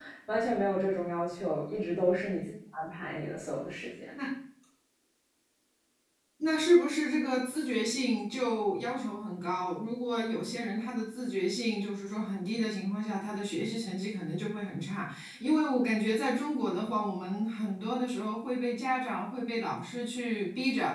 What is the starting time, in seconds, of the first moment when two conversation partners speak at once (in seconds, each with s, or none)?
none